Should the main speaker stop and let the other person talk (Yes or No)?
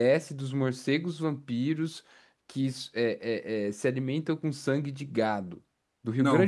Yes